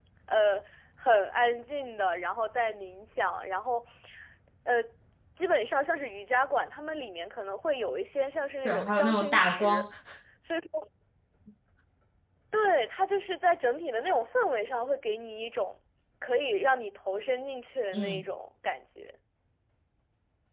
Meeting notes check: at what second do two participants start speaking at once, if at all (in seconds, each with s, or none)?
8.7 s